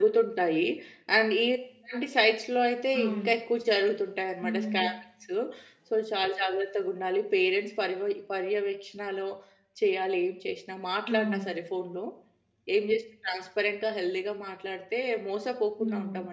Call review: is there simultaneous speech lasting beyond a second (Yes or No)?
No